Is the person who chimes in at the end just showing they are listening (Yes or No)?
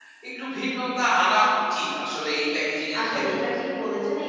No